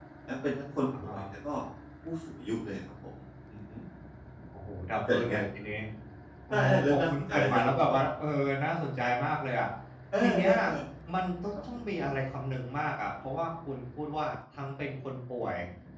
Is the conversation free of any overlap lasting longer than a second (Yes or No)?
No